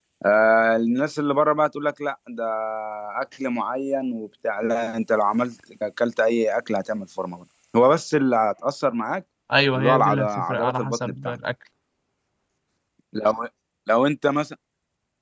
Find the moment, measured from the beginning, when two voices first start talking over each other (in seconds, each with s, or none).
9.8 s